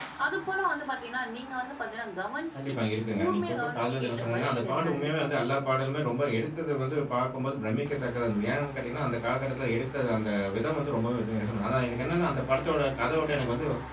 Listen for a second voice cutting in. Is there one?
Yes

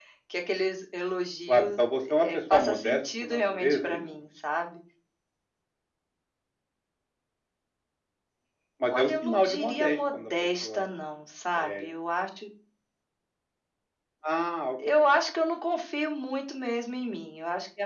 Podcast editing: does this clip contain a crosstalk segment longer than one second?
Yes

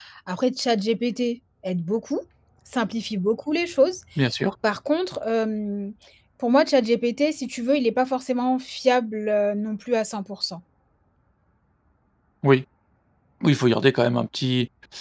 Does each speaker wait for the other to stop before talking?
Yes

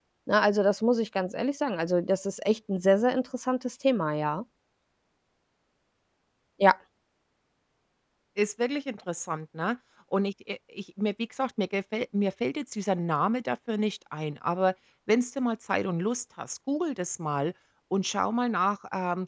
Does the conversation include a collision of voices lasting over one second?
No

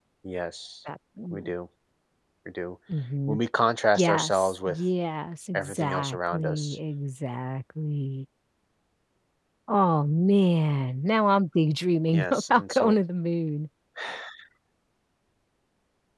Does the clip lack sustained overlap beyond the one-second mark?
No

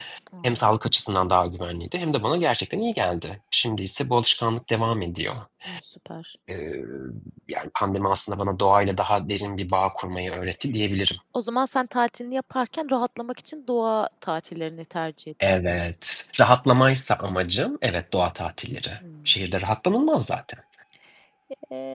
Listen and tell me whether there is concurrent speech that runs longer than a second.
No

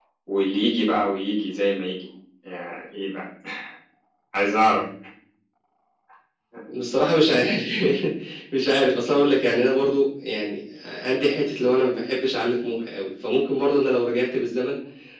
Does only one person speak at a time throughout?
Yes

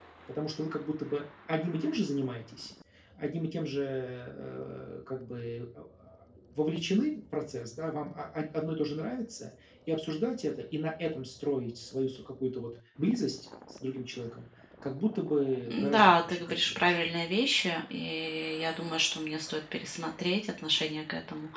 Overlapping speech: Yes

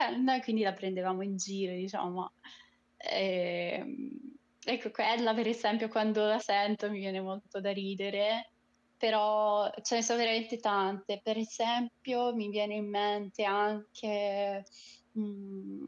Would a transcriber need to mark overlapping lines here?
No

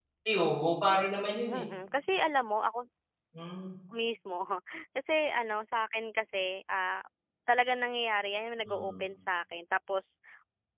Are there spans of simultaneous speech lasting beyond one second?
No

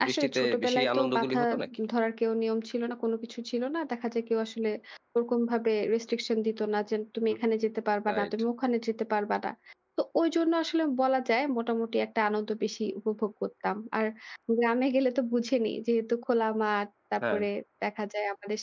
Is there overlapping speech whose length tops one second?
Yes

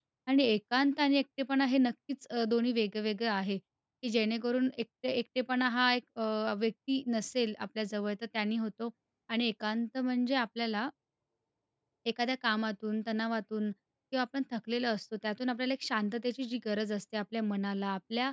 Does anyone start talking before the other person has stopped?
No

